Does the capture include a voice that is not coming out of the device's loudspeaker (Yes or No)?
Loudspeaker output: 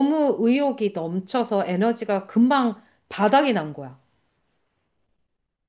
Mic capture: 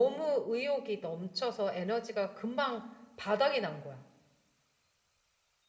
No